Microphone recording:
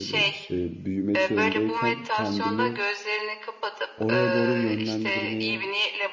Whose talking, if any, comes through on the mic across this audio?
both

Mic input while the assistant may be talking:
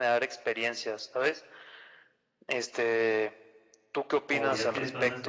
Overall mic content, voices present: both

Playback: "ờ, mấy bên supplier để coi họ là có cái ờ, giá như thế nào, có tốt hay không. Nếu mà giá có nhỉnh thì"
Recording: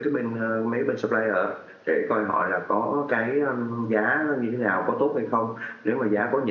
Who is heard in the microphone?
echo only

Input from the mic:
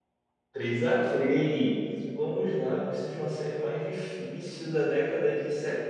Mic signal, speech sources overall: user only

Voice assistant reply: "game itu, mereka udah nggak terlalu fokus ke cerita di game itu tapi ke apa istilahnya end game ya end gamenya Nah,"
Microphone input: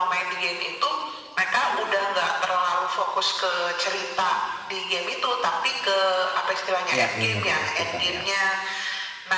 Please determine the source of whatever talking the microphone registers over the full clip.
both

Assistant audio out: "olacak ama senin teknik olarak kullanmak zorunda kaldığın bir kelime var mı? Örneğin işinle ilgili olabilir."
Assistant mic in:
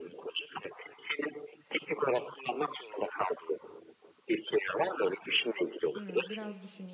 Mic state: both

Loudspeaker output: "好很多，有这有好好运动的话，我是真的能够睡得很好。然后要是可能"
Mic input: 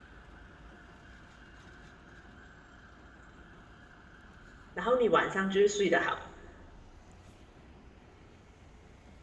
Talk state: user only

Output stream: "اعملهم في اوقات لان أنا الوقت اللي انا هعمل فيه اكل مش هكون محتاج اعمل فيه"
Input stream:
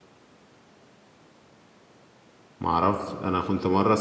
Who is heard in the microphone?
user only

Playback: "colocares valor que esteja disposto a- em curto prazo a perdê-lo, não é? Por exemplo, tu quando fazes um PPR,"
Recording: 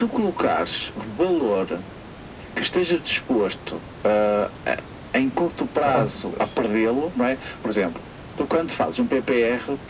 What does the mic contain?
both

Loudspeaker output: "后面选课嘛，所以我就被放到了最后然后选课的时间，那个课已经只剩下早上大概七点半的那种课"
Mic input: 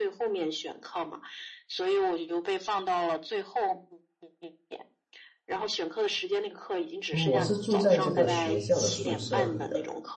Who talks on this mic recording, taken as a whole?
both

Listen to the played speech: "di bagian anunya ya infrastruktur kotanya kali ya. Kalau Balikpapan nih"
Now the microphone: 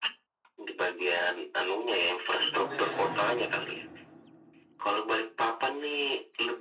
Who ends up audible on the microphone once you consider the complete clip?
both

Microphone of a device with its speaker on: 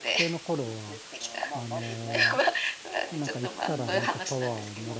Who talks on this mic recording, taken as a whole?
both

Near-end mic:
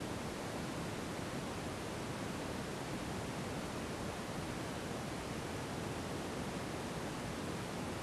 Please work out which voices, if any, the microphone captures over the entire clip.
neither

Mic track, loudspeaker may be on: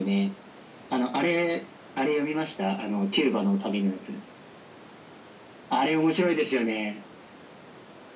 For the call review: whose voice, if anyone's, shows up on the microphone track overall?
echo only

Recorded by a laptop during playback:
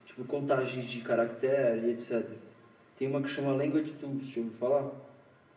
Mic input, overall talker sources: echo only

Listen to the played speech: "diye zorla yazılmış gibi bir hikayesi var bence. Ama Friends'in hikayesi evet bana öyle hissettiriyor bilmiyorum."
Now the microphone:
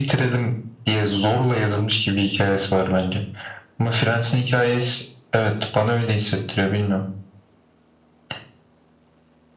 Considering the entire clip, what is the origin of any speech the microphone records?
echo only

